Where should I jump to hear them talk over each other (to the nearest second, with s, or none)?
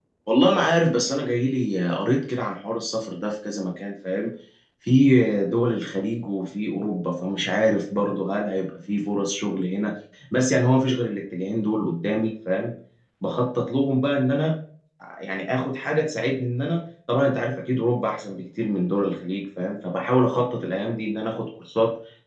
none